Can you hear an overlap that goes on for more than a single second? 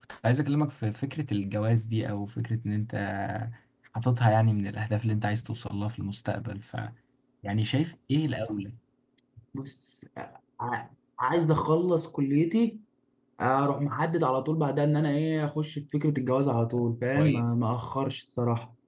No

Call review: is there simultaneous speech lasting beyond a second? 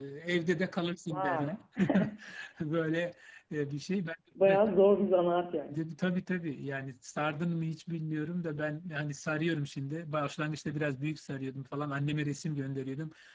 No

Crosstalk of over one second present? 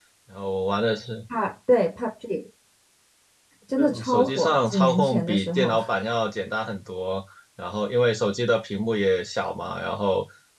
Yes, from 3.8 s

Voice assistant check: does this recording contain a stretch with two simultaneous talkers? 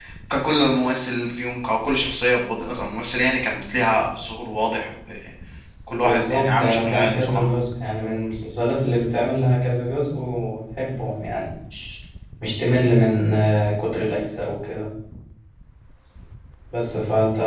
Yes, from 5.9 s

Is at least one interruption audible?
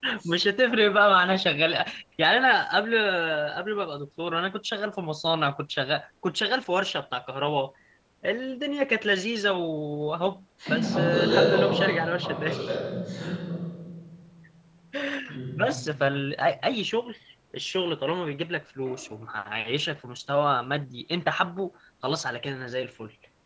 Yes, from 10.6 s

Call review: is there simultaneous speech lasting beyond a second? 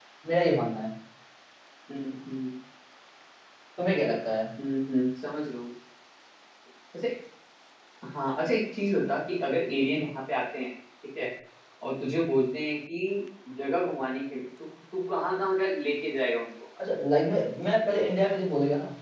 No

